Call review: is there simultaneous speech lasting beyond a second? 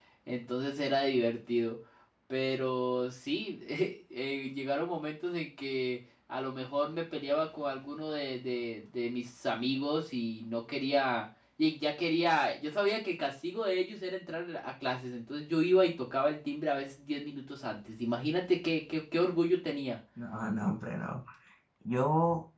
No

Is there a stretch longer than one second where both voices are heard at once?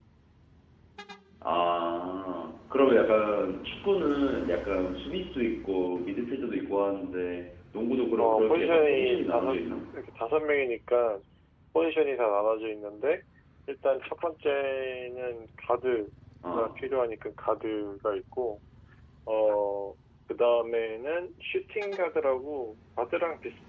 Yes, from 8.2 s

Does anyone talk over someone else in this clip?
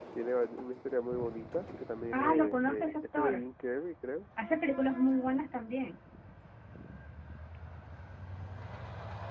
Yes, from 2.1 s

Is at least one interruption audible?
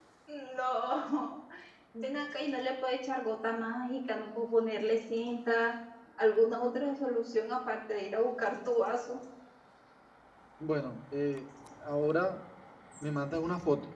No

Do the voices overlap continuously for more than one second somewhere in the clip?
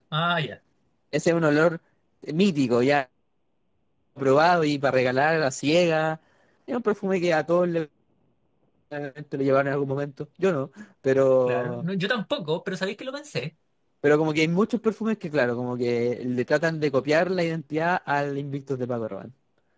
No

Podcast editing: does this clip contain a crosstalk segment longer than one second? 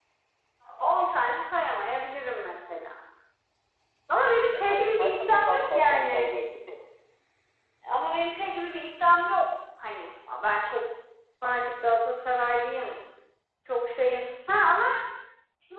Yes, from 4.5 s

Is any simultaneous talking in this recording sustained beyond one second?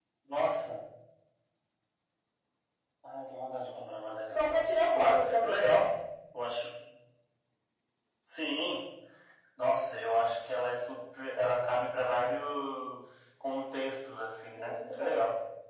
Yes, from 4.3 s

